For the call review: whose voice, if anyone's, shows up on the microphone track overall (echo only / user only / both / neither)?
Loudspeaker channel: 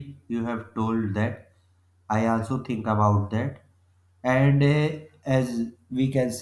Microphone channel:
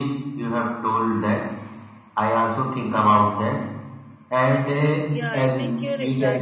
both